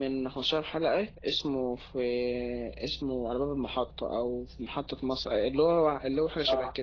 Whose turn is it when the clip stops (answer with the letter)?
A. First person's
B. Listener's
B